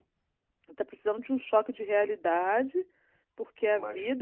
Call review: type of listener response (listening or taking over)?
listening